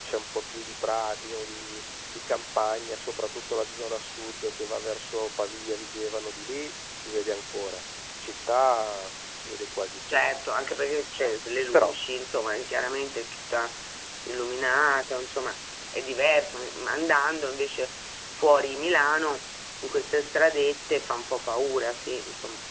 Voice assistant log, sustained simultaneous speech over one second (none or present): none